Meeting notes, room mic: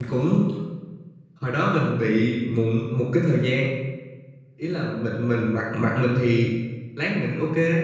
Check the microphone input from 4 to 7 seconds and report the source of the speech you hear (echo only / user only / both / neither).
user only